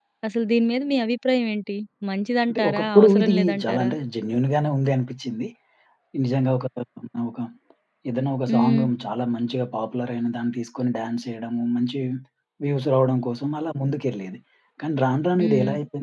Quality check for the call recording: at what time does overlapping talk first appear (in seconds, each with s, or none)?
2.5 s